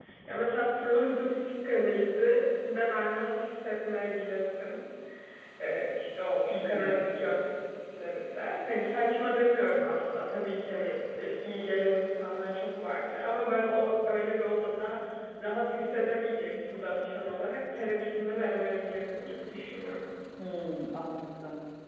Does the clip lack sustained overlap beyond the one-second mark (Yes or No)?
Yes